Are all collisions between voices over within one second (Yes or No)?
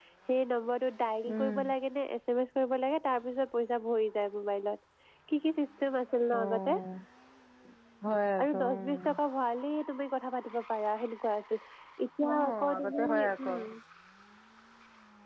No